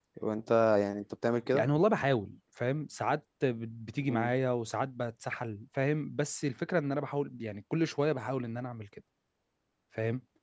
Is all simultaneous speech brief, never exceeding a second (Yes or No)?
Yes